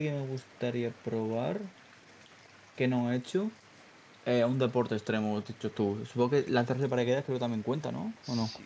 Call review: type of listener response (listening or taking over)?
taking over